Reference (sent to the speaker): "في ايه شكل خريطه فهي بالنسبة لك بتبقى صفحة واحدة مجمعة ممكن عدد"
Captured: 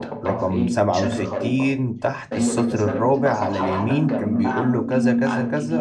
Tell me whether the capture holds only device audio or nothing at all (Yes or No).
No